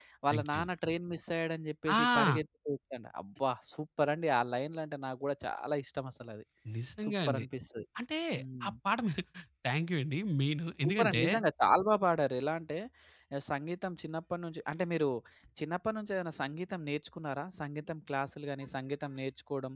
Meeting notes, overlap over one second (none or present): none